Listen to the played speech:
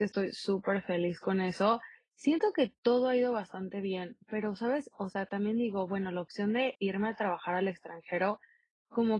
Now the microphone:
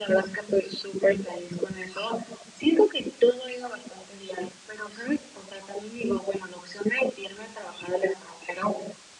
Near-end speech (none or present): none